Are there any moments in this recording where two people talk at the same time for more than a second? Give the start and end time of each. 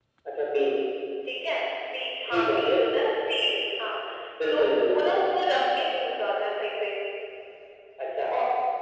none

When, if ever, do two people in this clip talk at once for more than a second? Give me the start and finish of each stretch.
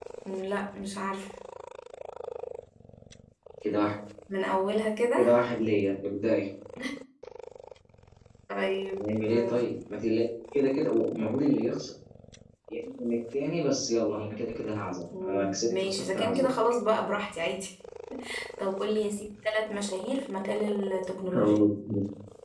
15.2-16.5

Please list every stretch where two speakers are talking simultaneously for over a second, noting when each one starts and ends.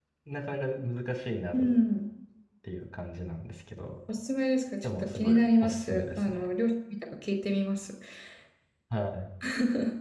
4.8-6.5

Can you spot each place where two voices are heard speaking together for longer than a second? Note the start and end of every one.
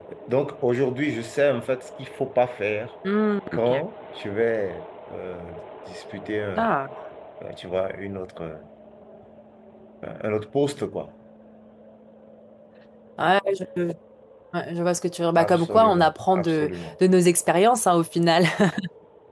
15.4-16.7

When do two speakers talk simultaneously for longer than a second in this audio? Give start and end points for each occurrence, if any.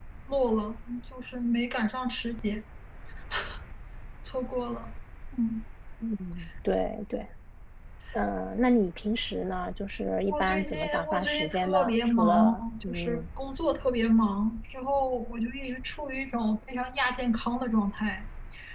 10.3-13.2

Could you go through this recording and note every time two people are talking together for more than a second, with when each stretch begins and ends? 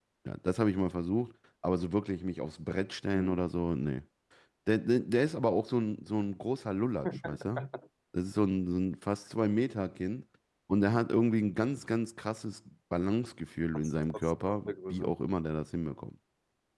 13.7-15.2

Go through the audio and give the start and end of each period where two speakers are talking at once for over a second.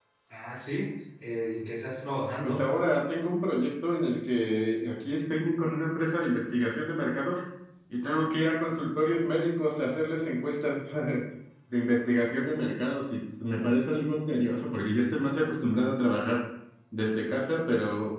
none

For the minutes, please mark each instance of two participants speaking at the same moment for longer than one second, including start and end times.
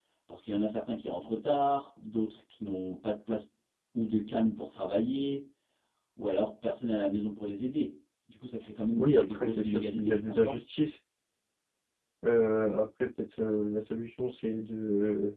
9.0-10.6

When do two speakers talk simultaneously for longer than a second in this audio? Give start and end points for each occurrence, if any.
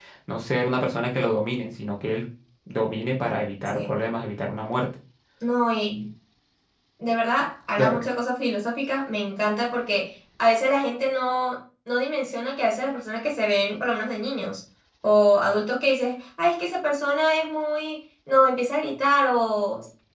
none

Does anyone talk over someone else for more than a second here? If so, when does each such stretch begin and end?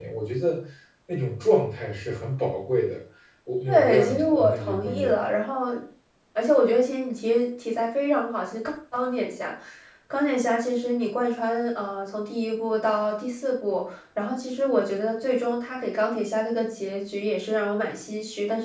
3.6-5.1

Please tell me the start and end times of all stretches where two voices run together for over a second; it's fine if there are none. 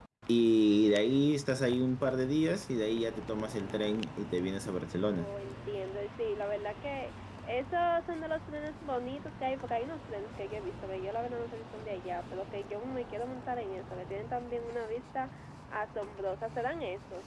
none

